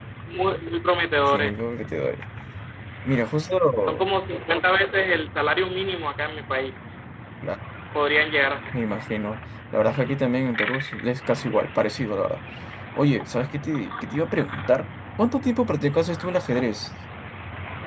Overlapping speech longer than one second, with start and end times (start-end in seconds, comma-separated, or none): none